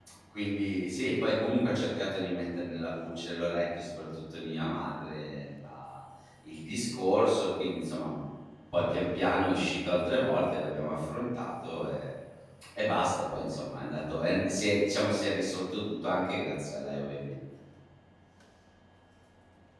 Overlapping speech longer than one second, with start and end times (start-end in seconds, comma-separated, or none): none